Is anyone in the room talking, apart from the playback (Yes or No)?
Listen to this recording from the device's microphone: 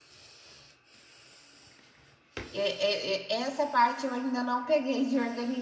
Yes